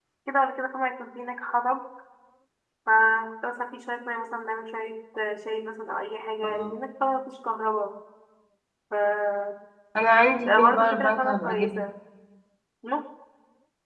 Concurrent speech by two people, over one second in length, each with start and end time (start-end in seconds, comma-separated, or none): 10.4-11.7